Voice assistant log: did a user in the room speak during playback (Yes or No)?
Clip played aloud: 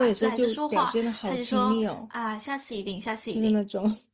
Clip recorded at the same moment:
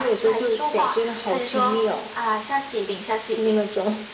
No